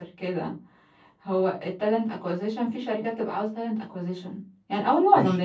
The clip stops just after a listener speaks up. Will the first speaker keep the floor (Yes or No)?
Yes